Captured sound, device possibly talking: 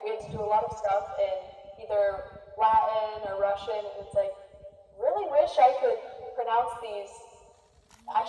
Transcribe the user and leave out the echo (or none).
none